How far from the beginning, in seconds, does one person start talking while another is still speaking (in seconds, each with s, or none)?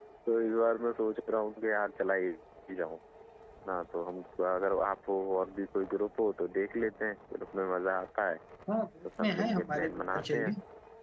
9.2 s